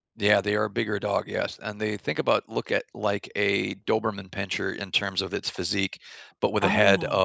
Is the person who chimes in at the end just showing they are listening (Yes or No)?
Yes